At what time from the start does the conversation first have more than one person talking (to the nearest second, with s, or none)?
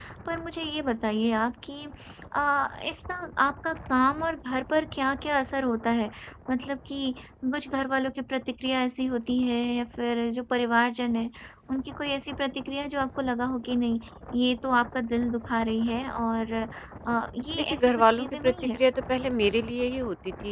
18 s